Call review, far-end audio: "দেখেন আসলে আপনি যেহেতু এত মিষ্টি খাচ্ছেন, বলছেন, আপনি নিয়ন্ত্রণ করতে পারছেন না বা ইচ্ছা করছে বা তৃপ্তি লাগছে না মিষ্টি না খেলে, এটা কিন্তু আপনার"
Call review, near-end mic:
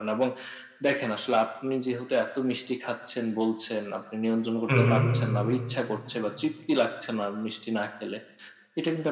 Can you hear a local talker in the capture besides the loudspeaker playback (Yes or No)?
Yes